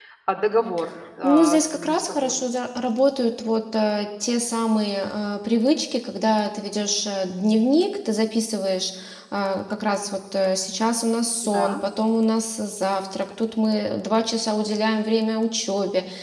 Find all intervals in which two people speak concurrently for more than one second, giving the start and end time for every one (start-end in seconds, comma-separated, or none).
1.2-2.4